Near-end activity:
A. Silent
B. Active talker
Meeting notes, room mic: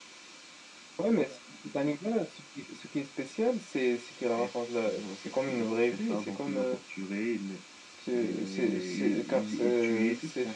A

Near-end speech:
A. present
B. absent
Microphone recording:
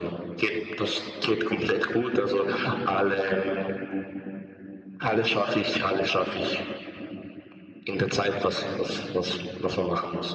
B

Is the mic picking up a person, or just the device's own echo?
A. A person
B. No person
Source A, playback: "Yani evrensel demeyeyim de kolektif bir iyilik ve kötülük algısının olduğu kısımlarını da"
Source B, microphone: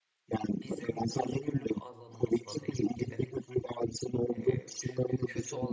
A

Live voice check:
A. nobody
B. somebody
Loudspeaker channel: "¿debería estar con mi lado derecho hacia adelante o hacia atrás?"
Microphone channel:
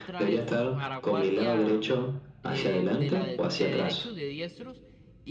B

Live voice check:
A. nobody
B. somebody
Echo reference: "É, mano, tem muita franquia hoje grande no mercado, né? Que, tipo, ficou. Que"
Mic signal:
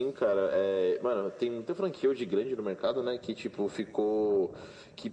A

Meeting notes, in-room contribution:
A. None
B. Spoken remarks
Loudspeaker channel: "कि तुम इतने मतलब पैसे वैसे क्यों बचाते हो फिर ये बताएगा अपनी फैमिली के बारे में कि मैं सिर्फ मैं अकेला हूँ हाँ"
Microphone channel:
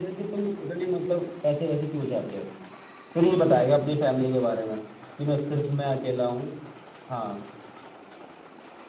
A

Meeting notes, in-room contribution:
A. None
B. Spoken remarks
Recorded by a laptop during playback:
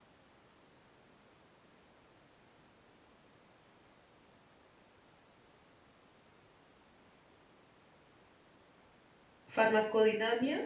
B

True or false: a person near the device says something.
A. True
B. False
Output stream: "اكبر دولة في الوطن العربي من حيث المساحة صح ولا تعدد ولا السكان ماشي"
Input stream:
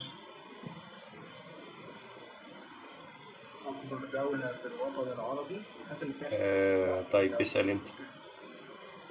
A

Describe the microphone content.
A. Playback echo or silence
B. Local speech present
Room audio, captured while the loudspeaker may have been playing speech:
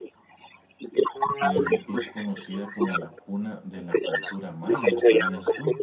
B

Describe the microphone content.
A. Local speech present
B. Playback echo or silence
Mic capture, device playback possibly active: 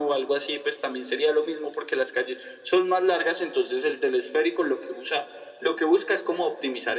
B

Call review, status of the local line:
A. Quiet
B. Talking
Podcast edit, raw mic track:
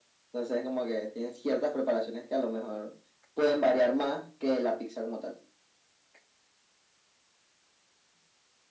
A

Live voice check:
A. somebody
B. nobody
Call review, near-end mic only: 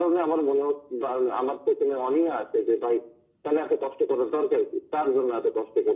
B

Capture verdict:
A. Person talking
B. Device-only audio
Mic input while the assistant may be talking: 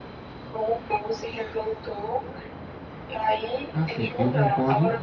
A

